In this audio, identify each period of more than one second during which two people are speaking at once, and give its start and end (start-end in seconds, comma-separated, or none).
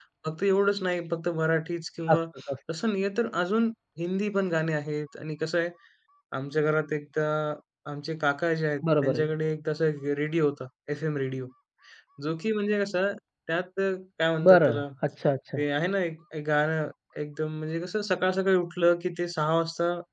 none